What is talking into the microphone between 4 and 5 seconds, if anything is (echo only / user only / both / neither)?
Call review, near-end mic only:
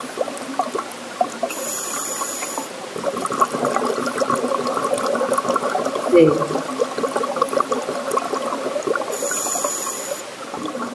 neither